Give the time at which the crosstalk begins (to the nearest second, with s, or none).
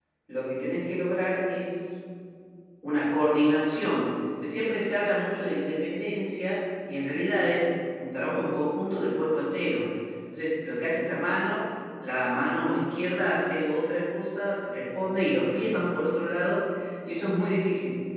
none